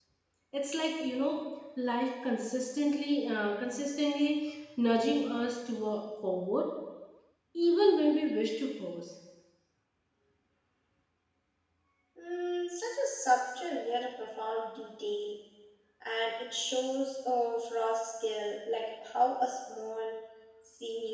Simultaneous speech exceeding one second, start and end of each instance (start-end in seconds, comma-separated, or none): none